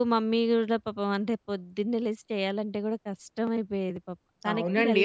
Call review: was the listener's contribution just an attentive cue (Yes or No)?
No